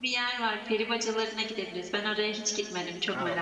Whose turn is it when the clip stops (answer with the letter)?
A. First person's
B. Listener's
B